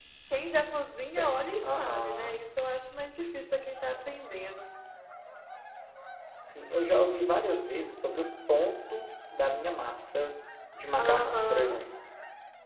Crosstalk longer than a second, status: present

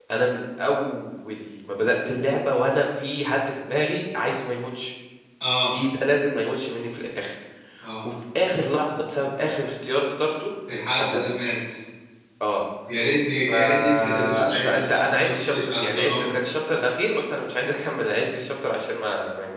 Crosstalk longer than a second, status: present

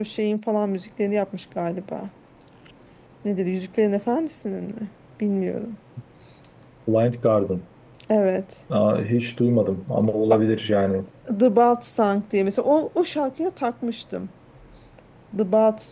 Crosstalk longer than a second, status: none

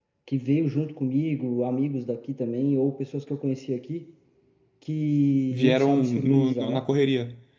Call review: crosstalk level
present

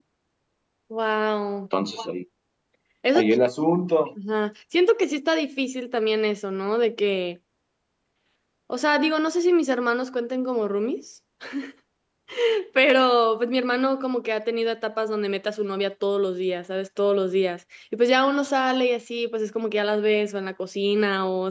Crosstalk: none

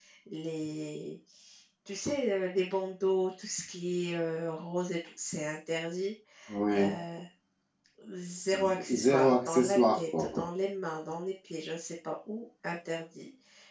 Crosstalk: present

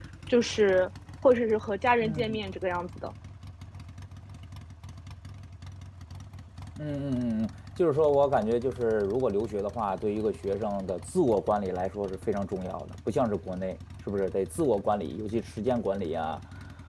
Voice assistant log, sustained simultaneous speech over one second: none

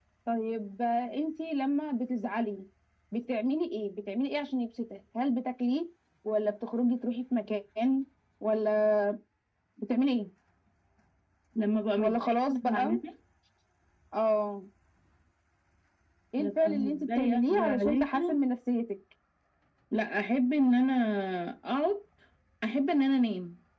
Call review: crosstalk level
present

